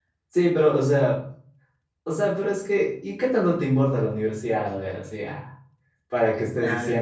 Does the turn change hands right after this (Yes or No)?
No